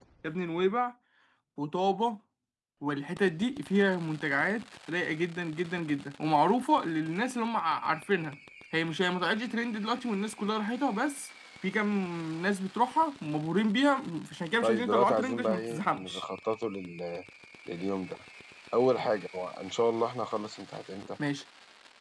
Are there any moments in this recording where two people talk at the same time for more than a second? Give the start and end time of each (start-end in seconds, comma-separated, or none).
14.6-16.2